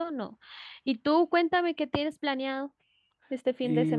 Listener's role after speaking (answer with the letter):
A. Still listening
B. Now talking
B